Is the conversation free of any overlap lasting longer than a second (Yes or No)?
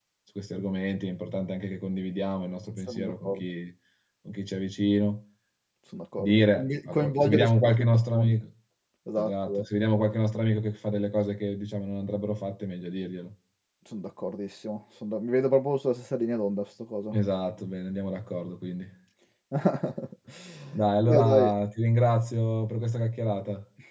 No